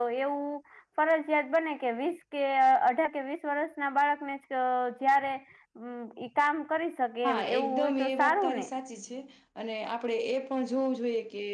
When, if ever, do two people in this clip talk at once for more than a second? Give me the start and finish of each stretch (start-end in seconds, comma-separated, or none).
7.2-8.7